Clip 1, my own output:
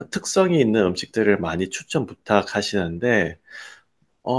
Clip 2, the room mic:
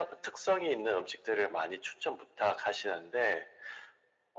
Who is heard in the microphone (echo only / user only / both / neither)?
echo only